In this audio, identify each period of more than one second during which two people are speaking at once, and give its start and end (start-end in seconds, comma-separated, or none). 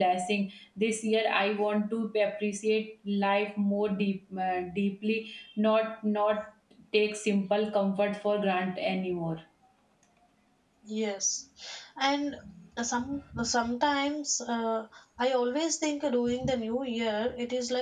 none